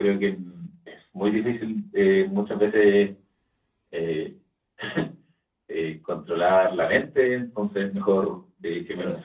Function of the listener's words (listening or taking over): taking over